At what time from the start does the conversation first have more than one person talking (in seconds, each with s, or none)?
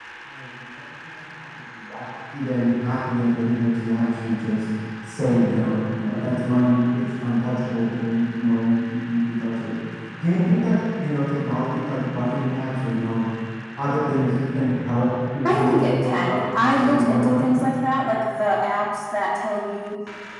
15.4 s